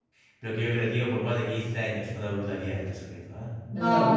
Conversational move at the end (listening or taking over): taking over